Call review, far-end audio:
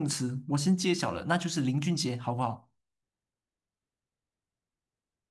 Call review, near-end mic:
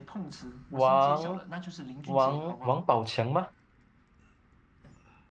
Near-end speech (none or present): present